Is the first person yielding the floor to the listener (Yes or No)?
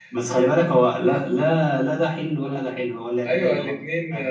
Yes